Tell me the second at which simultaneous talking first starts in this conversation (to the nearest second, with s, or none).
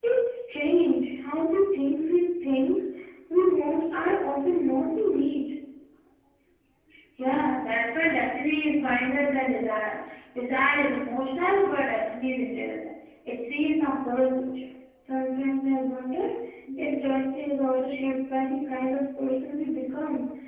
none